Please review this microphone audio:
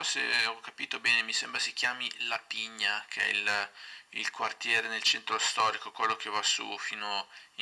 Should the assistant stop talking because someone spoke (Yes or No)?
No